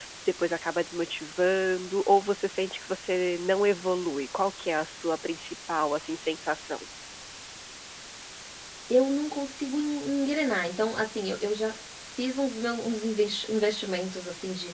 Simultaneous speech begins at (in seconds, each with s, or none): none